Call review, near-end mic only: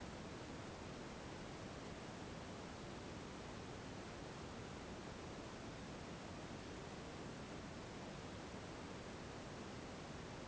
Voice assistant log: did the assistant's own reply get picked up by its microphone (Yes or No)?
No